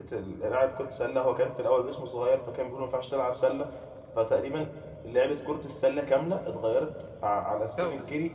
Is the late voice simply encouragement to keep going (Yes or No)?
Yes